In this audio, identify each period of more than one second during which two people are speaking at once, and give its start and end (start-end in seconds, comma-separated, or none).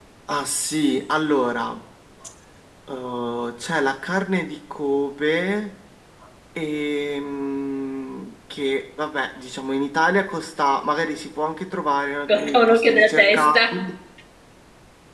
12.3-13.8